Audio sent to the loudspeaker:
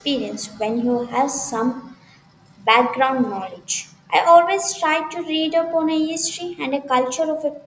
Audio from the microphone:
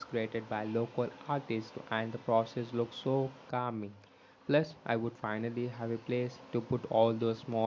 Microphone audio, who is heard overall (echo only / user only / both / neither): user only